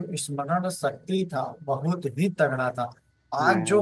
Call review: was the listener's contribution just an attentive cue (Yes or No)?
Yes